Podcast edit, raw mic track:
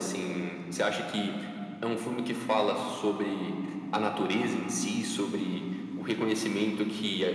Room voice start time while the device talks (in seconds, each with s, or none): none